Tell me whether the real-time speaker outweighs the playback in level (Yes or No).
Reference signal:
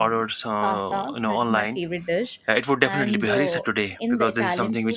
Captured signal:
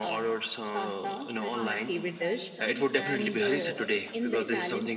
No